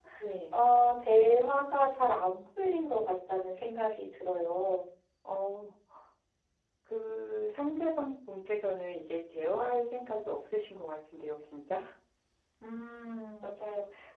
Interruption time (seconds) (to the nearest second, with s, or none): none